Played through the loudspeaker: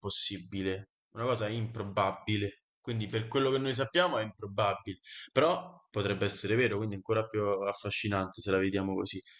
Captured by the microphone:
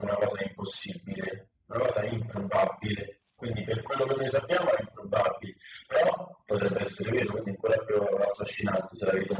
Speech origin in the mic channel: echo only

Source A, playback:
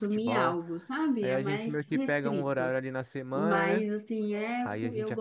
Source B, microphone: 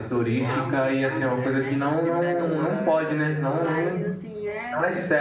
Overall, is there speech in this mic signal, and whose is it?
both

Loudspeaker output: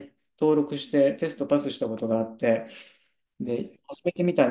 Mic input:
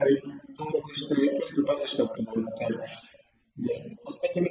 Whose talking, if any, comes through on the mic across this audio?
echo only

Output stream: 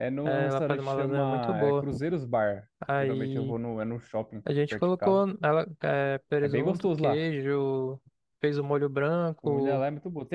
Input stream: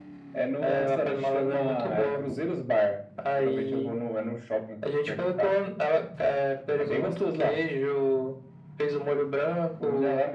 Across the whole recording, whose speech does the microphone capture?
echo only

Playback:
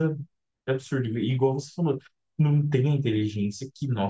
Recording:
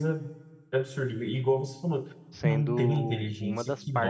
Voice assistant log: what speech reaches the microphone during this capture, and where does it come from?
both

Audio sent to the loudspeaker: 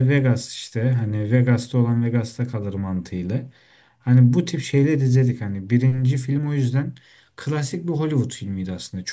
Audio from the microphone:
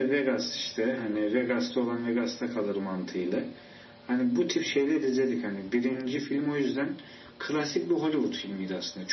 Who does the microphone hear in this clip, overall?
echo only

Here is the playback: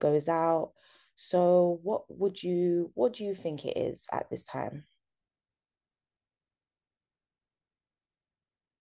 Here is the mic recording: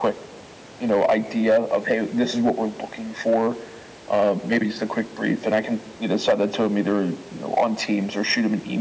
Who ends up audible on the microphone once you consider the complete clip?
user only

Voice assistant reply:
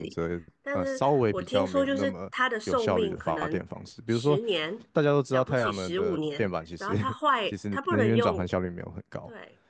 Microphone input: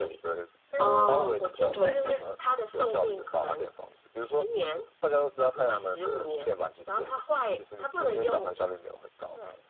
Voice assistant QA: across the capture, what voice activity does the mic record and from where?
both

